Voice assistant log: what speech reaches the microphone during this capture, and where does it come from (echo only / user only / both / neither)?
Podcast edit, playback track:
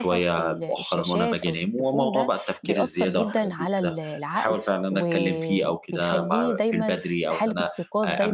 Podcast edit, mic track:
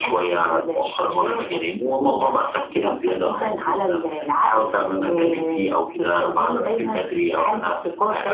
echo only